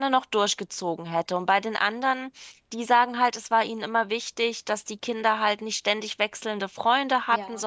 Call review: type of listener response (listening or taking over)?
listening